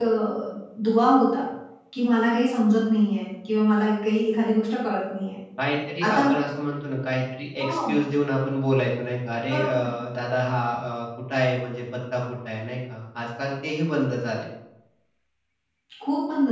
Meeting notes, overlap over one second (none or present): none